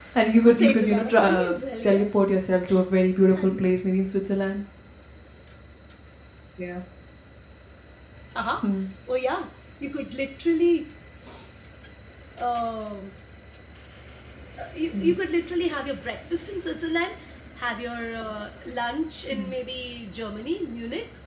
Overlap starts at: 0.6 s

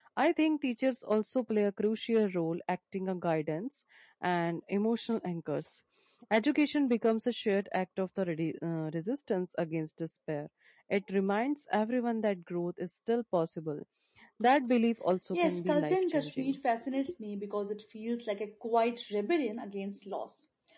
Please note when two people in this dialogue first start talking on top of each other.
15.3 s

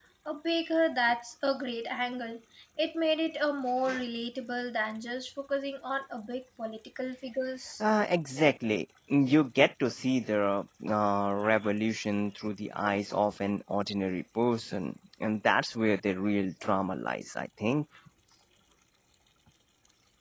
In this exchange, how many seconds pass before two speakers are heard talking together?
none

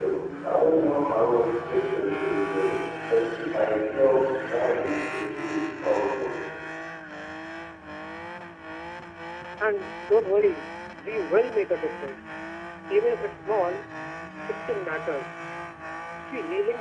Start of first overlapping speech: none

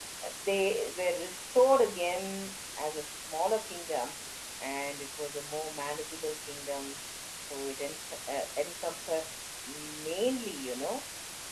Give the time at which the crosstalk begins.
none

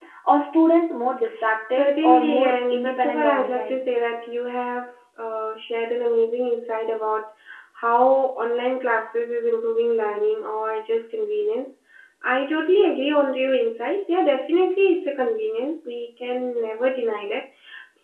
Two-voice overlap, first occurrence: 1.7 s

